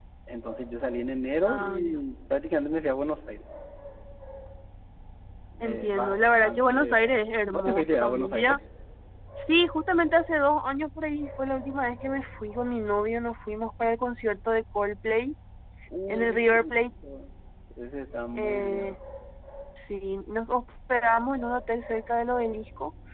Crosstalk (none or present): present